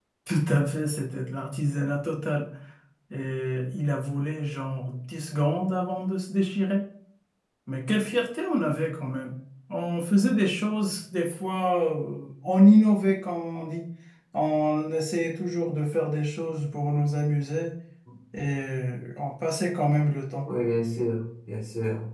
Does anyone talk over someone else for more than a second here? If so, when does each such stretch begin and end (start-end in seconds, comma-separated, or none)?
none